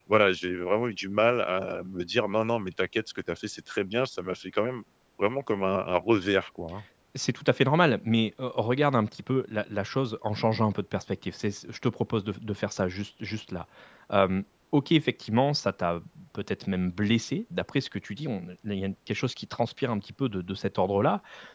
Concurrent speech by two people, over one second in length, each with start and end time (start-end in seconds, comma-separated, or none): none